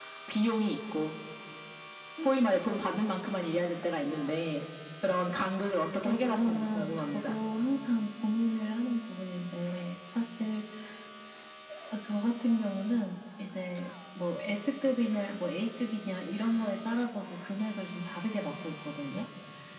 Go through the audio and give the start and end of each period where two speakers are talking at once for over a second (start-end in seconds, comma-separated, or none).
6.0-7.4